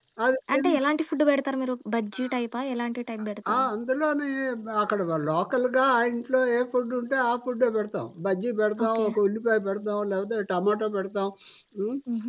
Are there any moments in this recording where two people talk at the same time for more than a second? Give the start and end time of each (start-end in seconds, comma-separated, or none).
none